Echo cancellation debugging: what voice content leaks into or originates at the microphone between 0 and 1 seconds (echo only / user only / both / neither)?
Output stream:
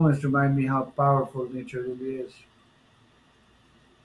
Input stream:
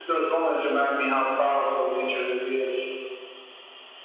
echo only